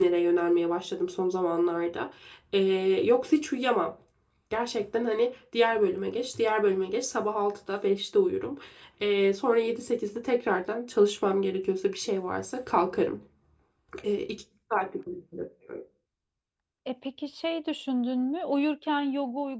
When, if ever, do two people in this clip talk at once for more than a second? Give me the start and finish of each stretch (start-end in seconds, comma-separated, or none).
none